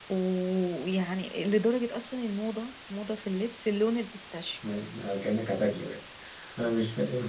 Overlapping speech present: No

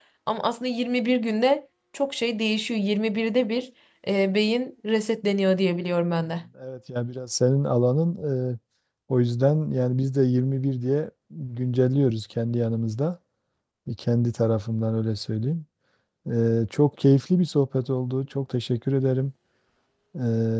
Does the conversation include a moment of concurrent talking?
No

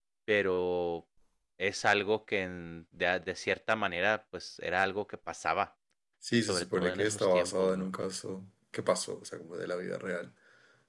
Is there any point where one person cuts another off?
Yes, from 6.4 s

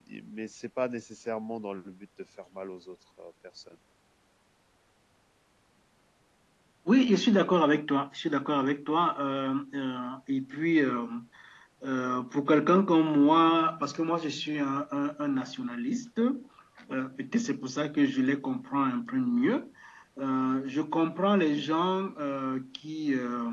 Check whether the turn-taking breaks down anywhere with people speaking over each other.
No

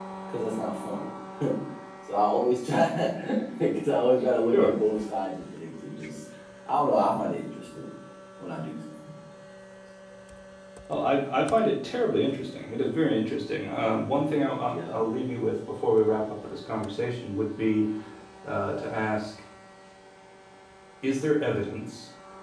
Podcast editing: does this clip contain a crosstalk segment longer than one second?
No

